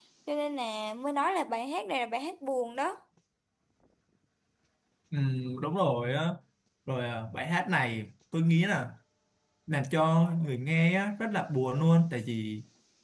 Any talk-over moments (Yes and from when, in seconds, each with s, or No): No